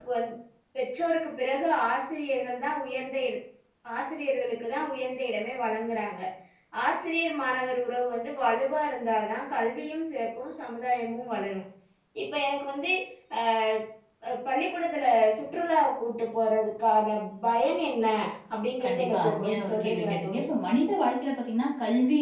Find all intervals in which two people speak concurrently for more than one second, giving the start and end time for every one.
18.8-20.5

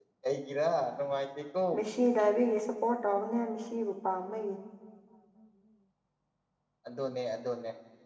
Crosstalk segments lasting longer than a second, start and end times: none

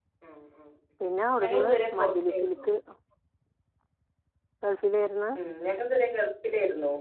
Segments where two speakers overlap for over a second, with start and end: 1.4-2.6

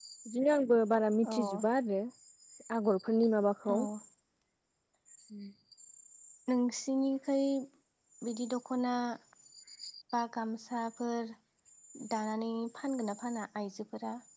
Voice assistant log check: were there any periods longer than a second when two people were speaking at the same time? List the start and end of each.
none

